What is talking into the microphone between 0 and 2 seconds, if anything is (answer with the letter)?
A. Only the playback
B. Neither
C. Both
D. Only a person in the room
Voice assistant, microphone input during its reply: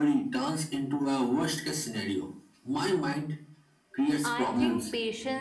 A